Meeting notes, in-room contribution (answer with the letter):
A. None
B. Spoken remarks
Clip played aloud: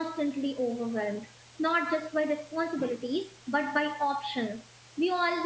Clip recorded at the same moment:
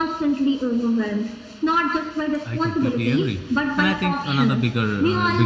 B